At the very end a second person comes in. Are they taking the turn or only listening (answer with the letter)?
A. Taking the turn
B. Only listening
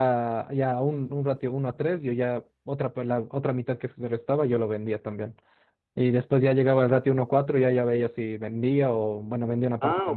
A